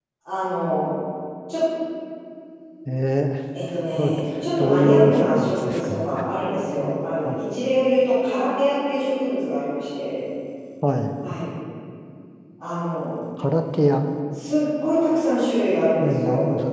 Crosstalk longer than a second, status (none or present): present